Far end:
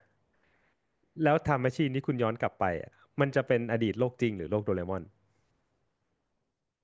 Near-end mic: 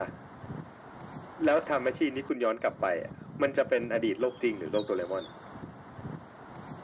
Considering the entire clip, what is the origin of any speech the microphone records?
echo only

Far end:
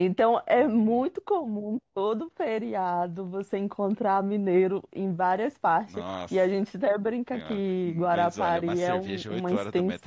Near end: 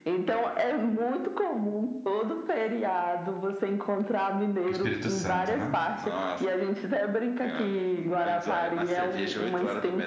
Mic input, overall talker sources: both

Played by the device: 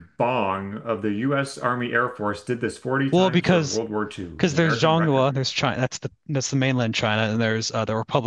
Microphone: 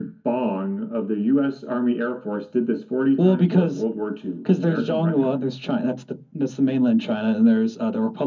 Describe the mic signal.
echo only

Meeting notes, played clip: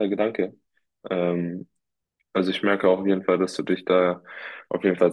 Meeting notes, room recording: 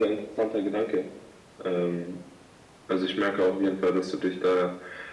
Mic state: echo only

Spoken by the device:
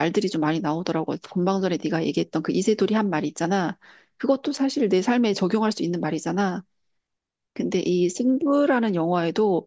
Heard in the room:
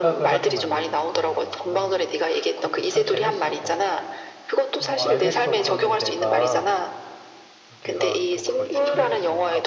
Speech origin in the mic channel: both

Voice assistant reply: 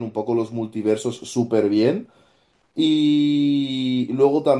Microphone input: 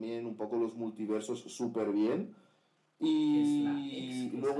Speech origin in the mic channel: both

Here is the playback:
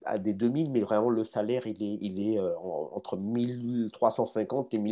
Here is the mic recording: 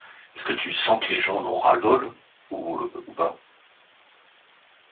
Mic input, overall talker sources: user only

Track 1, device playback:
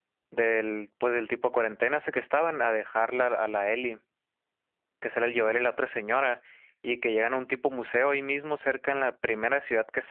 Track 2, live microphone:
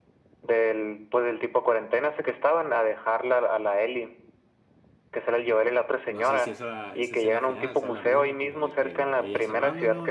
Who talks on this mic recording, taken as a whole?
both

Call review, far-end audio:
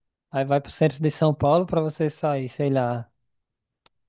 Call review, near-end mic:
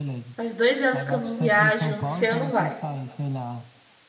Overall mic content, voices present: both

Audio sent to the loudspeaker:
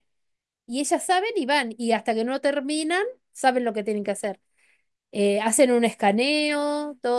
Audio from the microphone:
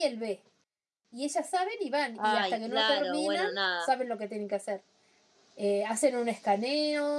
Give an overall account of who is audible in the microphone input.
both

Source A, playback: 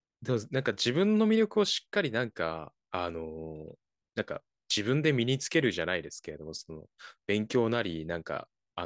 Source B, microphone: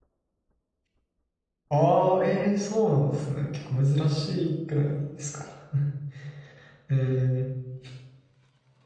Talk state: user only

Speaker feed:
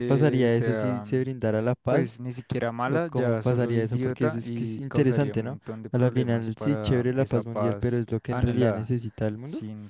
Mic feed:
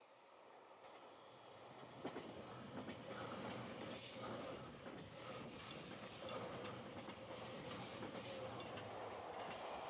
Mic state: neither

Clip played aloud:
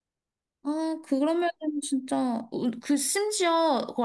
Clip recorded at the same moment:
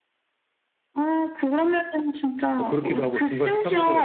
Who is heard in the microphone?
both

